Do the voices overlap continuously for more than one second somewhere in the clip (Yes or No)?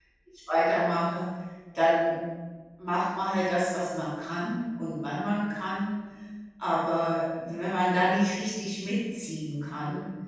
No